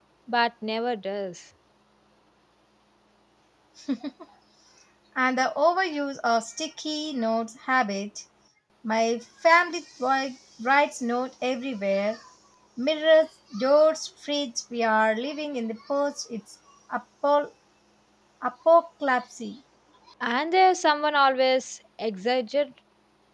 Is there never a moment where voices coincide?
Yes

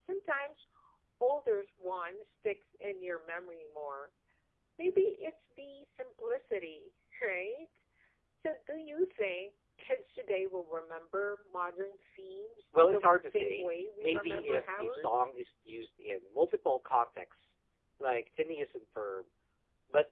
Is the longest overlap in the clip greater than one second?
Yes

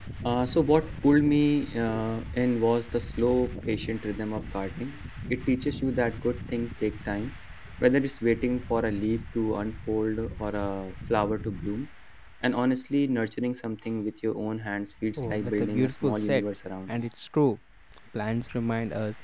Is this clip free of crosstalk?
No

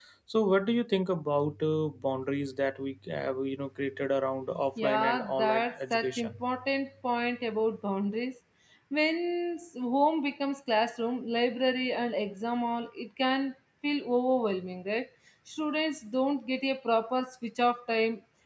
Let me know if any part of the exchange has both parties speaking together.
Yes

